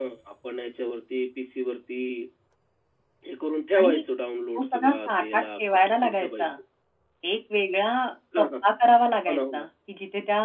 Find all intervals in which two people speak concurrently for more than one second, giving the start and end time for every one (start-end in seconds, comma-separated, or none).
4.5-6.5